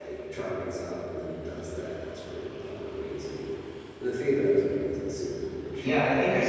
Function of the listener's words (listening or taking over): taking over